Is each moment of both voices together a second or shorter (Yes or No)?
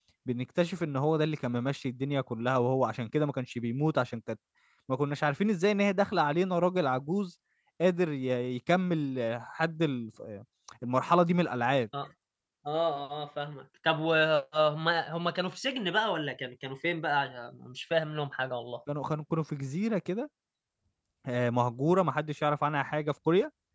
Yes